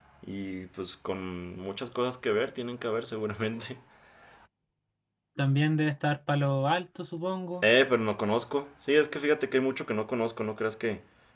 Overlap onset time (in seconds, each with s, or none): none